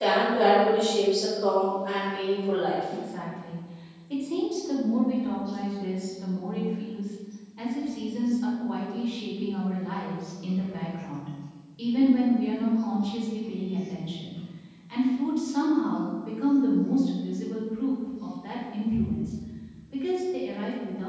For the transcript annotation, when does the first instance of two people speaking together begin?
none

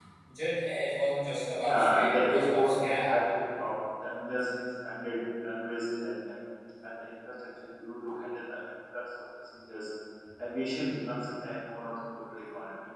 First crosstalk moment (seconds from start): 1.6 s

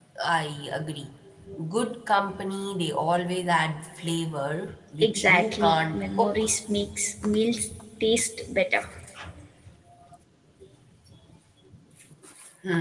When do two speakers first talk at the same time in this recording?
5.0 s

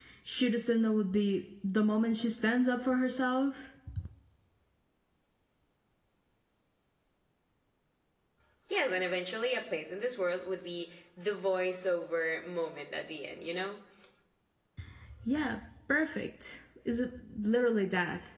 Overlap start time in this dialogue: none

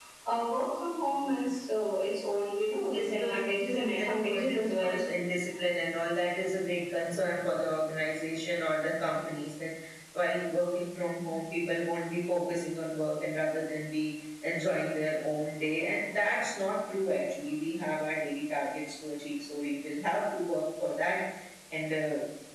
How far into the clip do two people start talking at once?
2.9 s

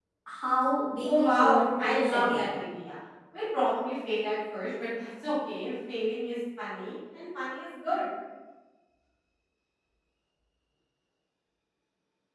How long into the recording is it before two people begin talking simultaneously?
1.0 s

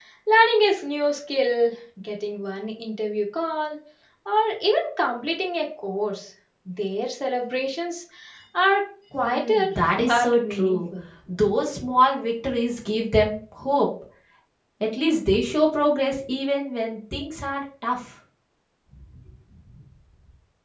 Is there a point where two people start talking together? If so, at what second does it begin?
9.2 s

